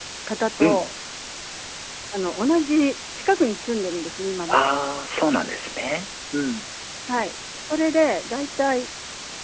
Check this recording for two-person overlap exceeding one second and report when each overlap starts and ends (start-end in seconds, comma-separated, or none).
none